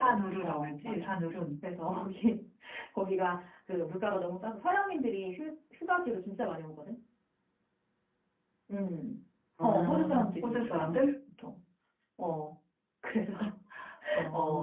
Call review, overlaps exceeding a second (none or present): present